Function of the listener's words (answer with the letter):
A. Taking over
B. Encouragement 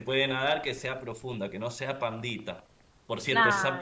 B